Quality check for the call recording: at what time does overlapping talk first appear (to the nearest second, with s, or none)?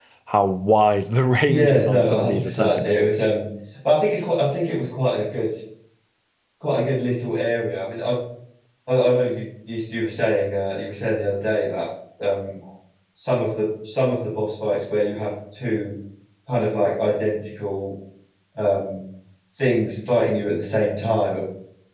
1 s